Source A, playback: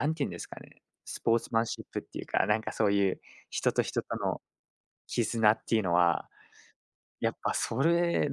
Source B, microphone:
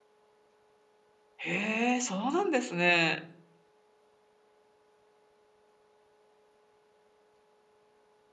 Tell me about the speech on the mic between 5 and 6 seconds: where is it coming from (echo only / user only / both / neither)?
neither